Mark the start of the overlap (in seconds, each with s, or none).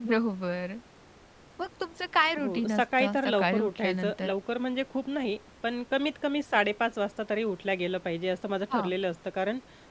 2.4 s